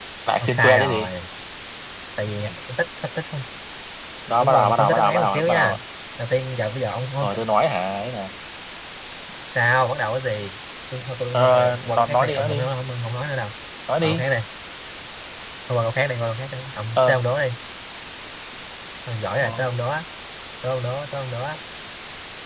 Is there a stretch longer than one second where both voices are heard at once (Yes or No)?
Yes